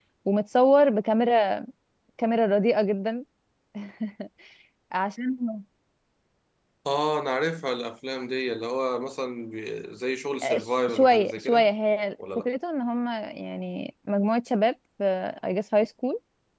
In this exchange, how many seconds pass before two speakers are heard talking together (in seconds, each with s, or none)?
10.4 s